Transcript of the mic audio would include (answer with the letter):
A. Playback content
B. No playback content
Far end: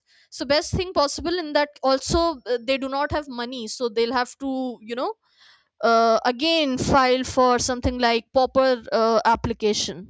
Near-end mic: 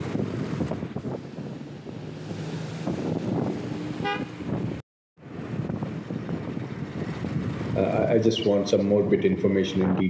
B